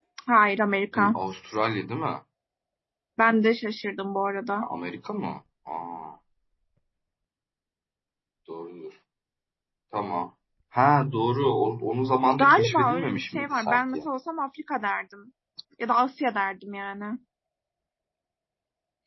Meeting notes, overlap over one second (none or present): present